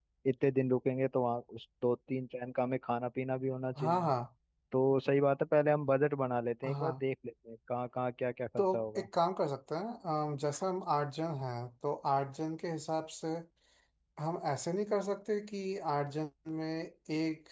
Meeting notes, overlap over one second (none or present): none